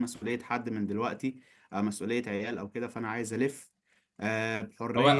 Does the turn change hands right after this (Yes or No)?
Yes